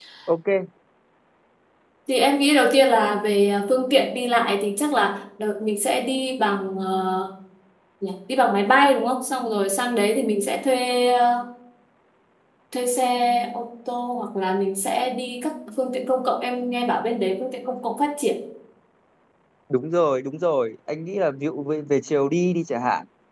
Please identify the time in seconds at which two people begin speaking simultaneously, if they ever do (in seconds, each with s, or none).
none